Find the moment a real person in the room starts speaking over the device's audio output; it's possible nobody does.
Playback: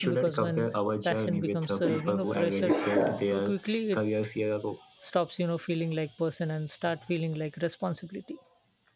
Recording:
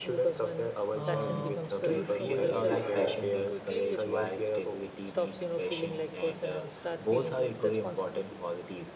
0.9 s

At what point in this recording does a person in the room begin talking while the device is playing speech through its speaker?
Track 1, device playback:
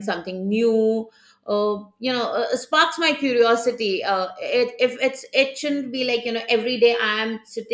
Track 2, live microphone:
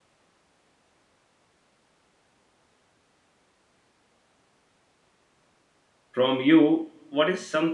6.1 s

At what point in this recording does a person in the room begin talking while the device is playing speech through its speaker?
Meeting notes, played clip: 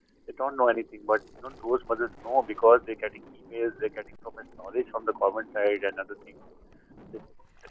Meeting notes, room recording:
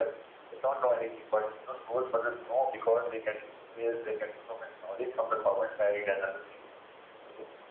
none

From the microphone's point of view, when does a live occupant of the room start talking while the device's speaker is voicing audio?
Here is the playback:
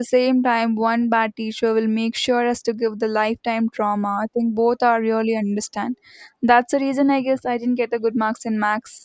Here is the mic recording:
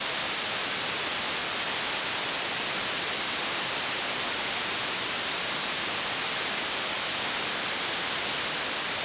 none

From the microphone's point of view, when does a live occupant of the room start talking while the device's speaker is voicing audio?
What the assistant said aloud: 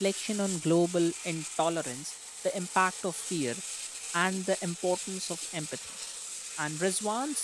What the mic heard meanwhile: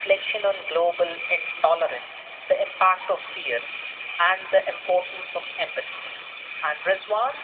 none

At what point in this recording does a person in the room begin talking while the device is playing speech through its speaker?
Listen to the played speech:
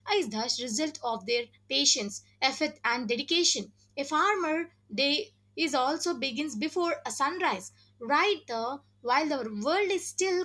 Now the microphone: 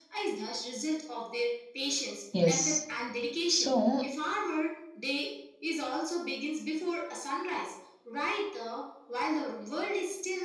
2.3 s

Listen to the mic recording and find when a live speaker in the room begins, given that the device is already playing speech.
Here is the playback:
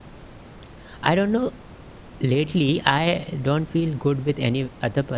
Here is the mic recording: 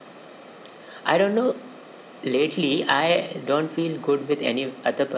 none

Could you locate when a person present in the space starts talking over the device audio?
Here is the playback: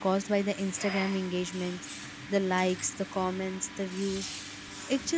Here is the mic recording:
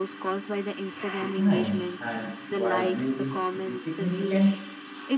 1.2 s

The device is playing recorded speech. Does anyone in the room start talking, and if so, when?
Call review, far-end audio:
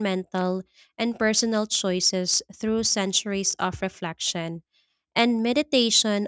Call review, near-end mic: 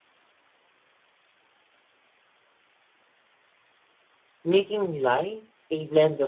4.4 s

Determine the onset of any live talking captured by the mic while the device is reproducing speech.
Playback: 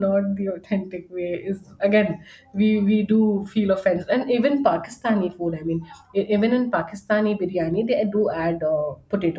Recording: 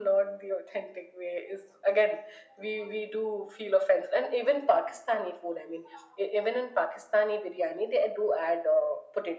none

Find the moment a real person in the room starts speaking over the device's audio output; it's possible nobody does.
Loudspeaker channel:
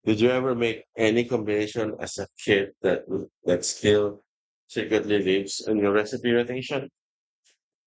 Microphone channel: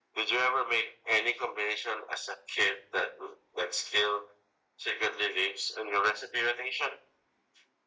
none

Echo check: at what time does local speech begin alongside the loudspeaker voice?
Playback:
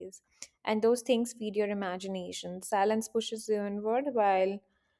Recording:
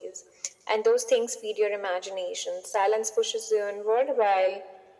none

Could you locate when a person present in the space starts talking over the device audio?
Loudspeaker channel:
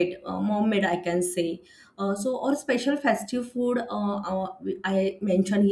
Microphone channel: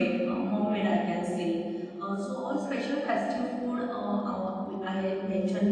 none

